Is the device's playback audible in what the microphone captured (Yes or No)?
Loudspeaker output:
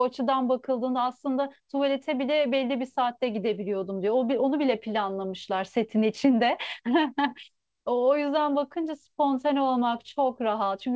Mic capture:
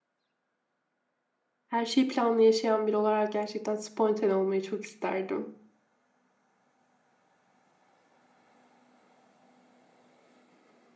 No